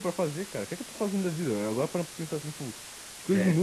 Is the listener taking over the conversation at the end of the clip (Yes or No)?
No